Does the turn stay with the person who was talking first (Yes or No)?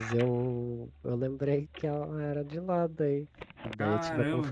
Yes